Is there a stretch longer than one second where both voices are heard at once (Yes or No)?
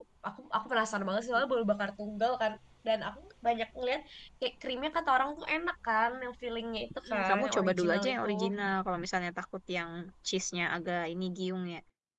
Yes